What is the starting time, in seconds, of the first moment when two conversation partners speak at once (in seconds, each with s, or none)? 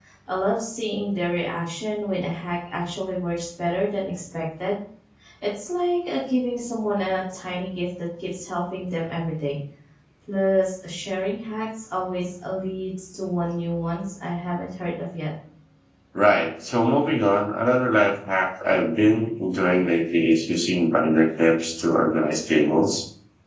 none